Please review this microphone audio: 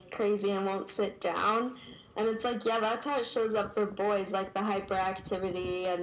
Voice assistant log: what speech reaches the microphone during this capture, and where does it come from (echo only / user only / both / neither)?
echo only